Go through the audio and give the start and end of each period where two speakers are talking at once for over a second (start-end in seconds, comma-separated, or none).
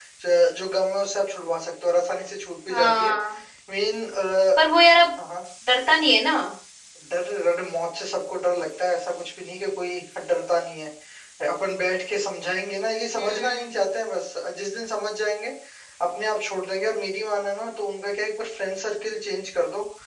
none